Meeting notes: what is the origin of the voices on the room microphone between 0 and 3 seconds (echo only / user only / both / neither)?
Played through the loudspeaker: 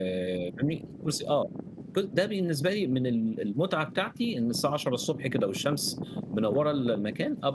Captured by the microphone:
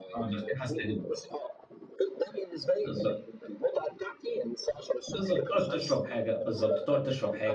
both